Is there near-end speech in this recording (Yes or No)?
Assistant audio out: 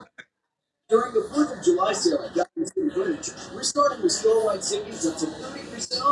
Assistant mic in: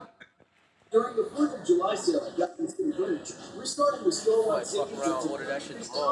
Yes